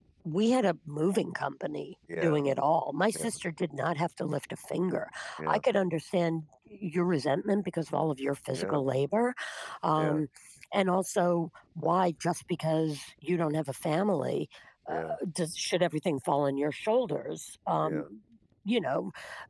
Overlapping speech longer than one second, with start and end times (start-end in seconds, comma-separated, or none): none